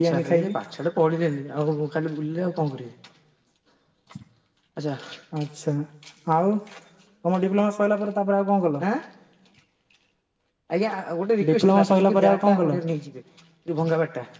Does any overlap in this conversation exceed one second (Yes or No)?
Yes